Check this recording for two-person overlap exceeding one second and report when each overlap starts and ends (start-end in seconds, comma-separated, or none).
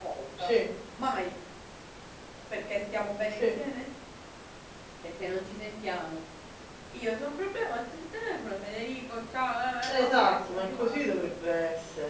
9.9-11.2